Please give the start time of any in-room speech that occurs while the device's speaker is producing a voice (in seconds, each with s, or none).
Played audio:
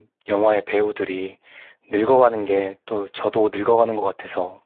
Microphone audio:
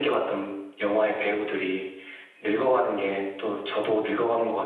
none